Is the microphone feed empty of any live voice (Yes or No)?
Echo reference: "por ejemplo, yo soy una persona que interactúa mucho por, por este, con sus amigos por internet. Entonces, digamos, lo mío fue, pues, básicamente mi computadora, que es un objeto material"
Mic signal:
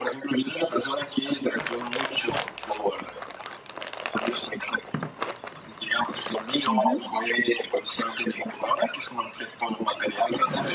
No